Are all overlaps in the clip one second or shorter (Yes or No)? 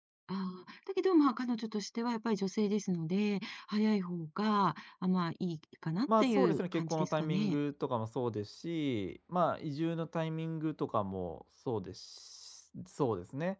No